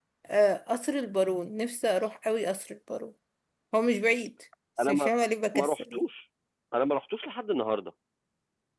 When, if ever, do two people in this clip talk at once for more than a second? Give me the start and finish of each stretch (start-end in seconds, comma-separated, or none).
none